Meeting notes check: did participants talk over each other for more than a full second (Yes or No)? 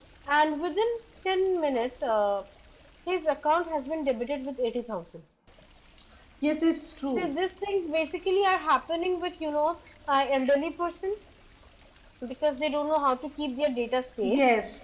No